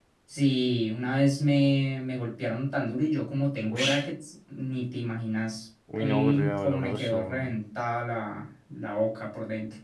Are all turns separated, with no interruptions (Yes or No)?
No